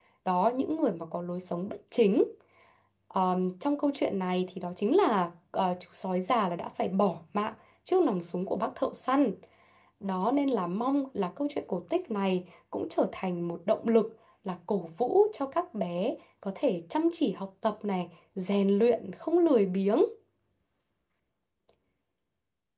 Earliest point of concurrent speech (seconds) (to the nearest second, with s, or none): none